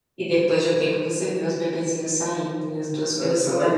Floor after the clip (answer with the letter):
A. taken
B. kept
A